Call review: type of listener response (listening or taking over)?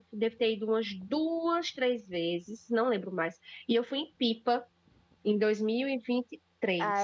taking over